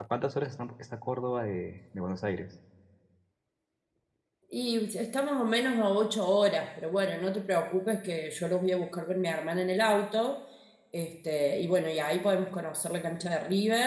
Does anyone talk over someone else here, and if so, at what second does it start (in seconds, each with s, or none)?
none